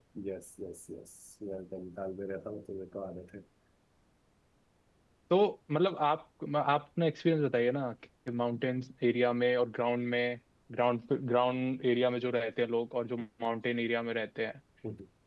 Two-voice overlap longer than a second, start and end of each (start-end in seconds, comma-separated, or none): none